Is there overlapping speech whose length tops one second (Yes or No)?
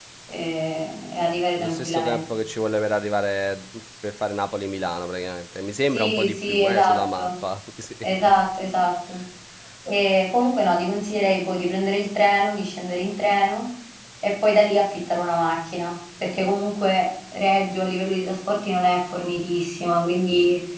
Yes